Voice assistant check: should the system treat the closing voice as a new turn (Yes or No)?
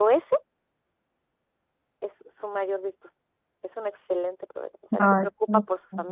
No